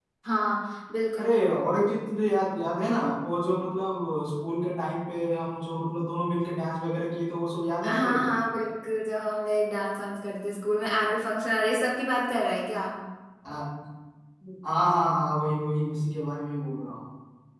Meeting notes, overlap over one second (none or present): none